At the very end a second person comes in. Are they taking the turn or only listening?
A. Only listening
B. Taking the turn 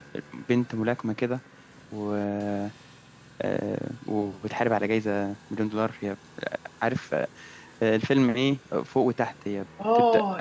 B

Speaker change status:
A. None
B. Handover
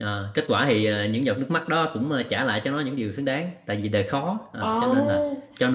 A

